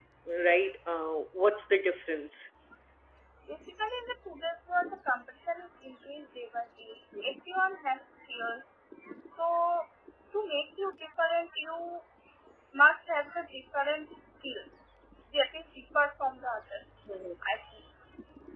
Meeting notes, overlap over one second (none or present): none